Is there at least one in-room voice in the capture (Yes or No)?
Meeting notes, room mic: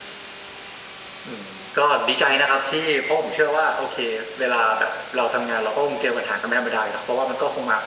No